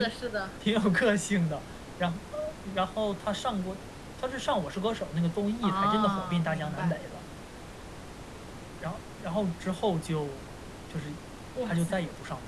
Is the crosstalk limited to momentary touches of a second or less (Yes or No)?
No